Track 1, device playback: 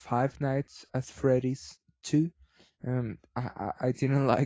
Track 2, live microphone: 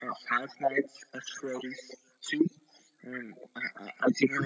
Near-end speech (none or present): none